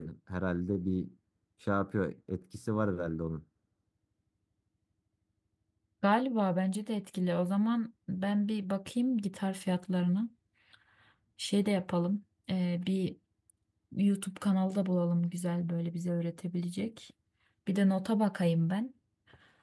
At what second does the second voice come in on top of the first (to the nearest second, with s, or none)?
none